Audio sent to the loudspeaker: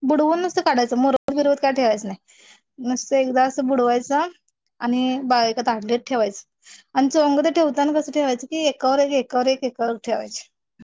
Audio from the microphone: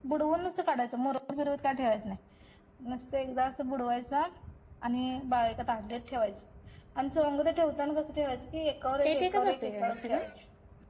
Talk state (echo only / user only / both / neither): both